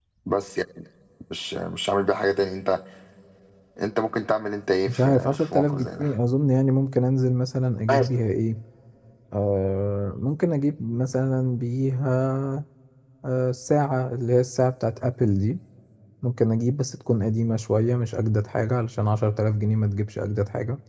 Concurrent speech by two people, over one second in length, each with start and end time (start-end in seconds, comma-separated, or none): 4.9-6.1